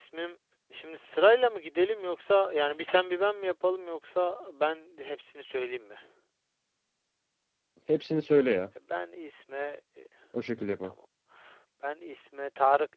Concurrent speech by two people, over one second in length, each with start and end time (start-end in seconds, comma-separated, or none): none